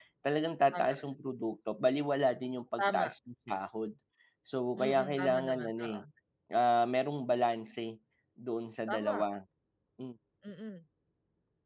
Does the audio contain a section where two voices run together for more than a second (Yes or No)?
Yes